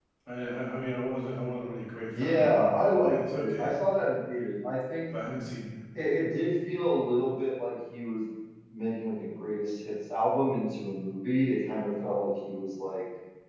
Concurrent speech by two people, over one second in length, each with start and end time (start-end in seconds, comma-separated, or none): 2.2-3.7